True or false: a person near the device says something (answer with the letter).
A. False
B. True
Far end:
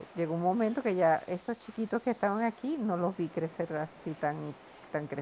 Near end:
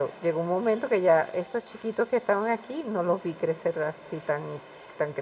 A